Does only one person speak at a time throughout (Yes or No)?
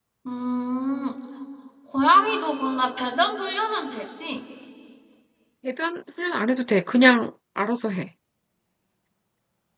Yes